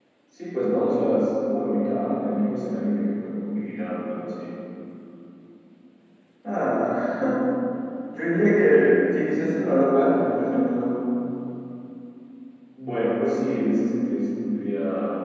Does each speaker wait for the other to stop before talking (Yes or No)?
Yes